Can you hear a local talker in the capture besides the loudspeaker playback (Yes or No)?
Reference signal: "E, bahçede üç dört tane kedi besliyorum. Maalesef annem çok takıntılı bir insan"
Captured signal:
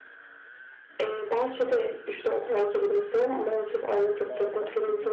Yes